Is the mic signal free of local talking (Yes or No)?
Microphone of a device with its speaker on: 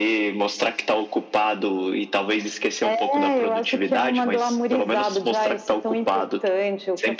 Yes